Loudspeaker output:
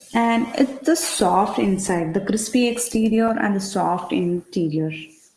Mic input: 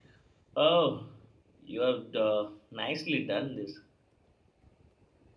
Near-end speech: present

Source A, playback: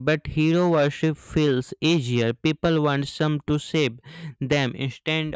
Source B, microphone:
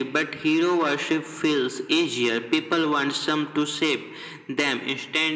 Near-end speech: none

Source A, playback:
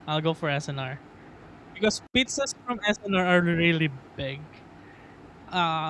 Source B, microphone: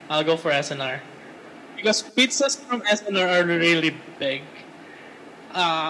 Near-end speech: none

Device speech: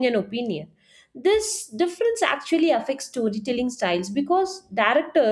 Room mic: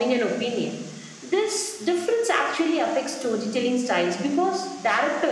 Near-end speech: none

